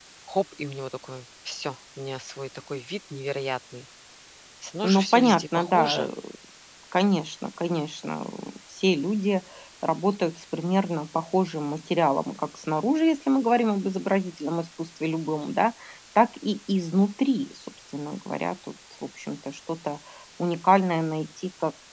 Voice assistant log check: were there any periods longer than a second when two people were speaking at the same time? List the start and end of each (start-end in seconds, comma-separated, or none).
4.8-6.1